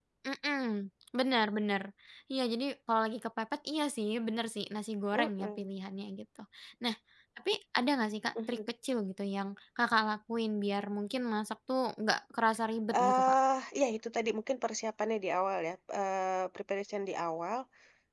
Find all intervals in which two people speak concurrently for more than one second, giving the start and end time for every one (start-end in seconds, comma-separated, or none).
none